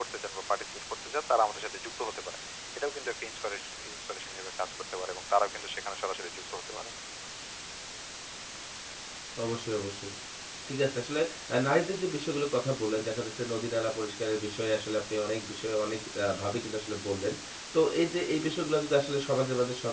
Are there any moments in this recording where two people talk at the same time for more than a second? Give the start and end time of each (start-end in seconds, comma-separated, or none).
none